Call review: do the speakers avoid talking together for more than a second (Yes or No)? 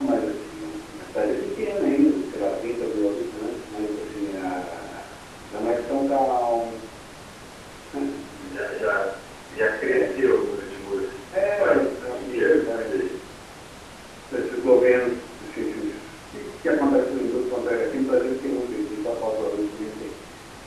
No